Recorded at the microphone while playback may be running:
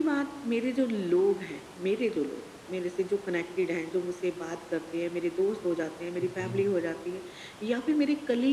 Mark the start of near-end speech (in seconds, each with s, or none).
6.2 s